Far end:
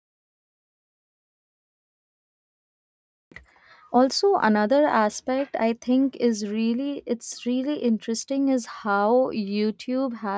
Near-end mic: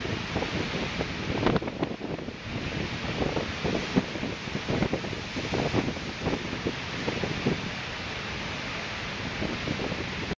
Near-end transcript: none

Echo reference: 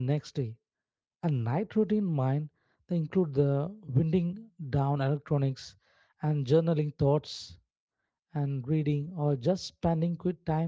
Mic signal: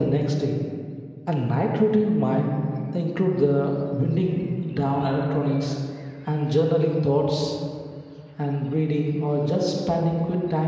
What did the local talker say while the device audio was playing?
none

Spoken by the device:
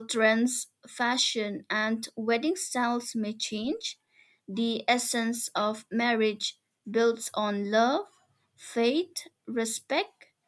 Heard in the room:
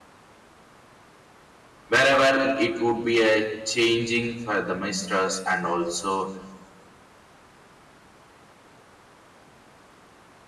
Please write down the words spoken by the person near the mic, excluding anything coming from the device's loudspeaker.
wherever it would be a changing for the mistress and also

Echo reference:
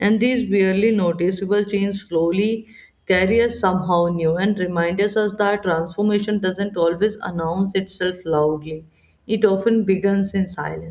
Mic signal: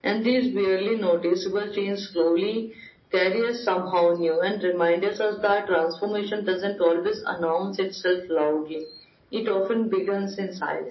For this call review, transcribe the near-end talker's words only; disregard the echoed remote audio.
none

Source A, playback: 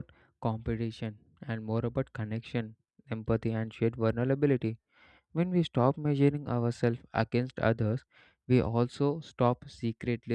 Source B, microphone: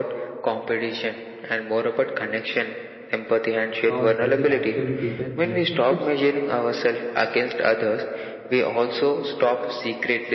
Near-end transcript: Or does it actually deepen relationships?

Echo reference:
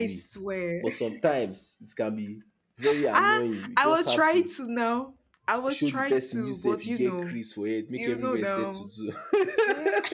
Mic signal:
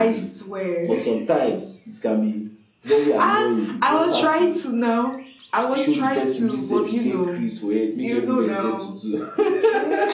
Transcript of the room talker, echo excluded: none

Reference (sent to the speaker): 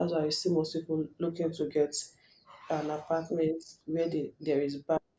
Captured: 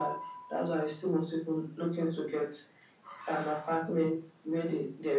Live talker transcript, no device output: none

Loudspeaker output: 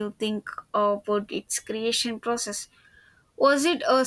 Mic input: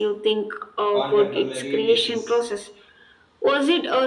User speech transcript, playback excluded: contemporary pieces.

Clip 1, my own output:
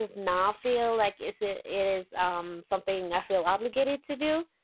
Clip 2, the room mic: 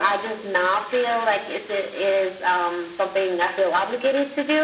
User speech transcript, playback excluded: none

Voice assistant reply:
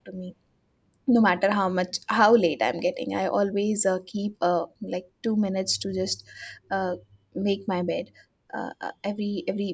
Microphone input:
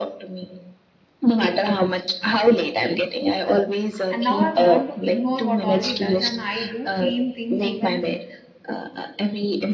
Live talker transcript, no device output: and now i've learned to ignore what all he does and i do clean things even if

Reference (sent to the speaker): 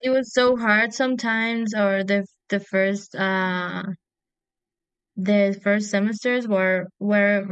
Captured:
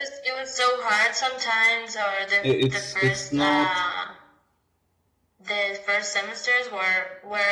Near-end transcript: it- it's it's not.

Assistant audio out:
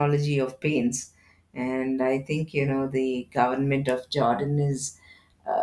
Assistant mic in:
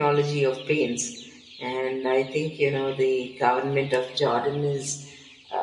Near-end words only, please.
none

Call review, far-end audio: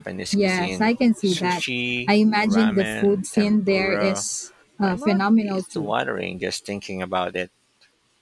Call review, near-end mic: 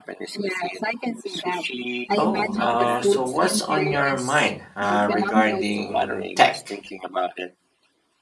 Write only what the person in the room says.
Oh, uh, so what's on your mind uh, regarding tech?

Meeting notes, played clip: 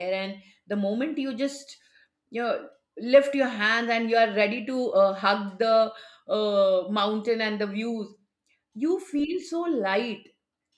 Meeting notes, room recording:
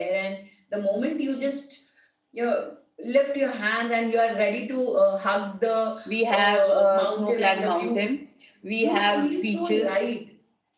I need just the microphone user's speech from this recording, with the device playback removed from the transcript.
we have a snow-clad mountain, we have beaches,

